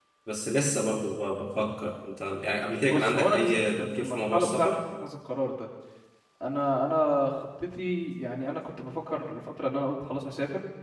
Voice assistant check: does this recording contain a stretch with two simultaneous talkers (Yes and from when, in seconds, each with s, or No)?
Yes, from 2.8 s